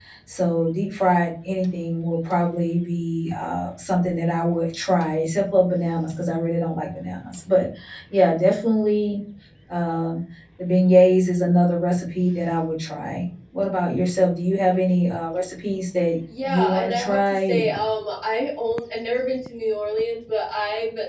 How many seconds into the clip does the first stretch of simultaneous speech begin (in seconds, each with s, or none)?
16.3 s